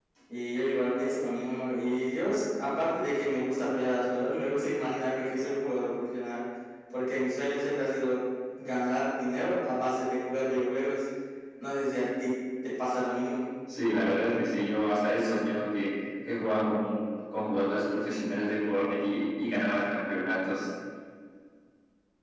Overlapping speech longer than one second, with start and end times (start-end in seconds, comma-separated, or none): none